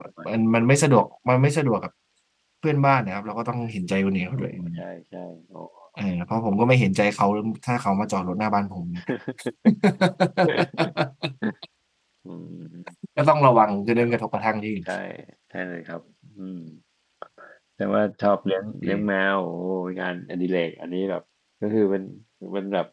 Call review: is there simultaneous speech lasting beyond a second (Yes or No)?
No